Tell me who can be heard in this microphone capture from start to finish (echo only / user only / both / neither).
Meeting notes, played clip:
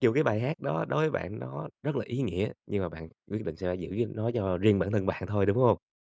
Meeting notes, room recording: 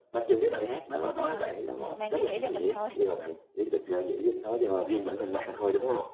both